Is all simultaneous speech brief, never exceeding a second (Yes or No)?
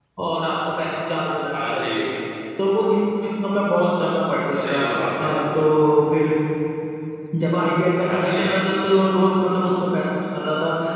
Yes